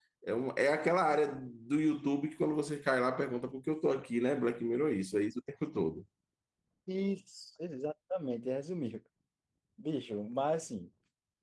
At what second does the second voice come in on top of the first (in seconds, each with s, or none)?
none